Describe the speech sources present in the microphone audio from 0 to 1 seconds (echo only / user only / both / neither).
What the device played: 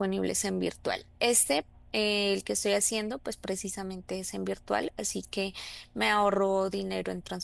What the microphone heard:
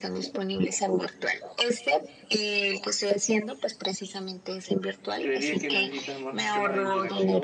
echo only